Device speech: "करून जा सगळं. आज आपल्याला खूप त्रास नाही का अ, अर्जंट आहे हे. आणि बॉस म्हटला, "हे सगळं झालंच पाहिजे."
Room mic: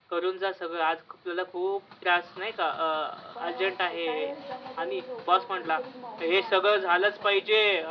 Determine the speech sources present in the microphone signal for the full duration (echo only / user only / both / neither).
both